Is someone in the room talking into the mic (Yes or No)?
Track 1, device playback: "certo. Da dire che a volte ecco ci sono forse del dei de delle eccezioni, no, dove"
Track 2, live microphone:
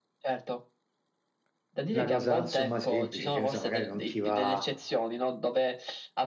Yes